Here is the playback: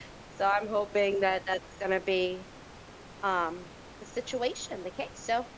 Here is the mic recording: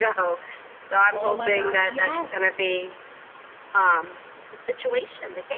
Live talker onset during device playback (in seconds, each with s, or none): 1.1 s